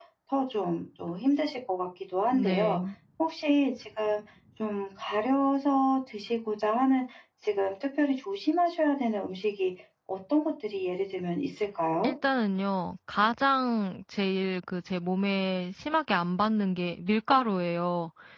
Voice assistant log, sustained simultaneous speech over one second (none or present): none